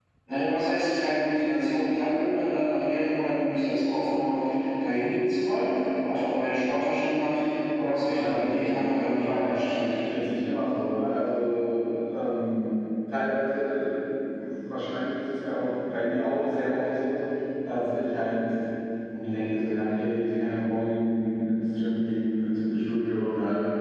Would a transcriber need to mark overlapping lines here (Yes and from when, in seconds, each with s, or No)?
Yes, from 8.1 s